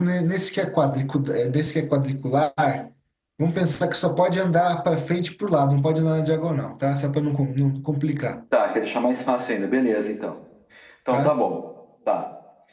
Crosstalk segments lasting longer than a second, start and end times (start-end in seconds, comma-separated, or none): none